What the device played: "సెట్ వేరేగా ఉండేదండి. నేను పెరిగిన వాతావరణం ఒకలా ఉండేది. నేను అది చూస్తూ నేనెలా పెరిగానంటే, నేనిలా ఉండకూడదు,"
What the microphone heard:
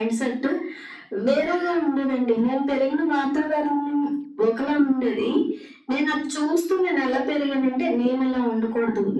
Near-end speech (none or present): none